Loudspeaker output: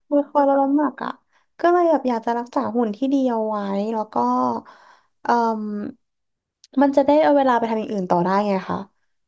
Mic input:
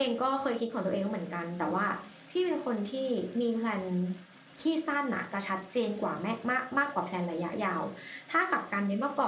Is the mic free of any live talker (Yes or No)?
No